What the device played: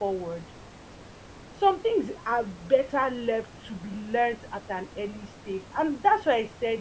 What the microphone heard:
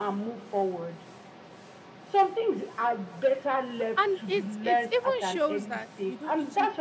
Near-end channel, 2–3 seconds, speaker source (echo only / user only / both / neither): echo only